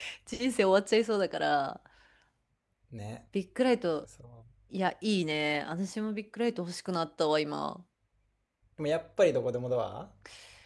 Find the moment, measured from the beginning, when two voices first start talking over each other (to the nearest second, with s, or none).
none